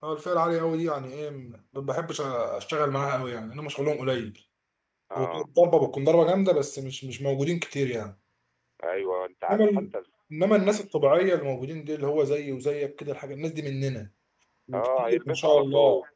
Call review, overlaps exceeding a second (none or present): present